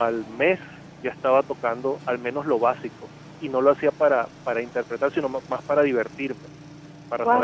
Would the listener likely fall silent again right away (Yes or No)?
No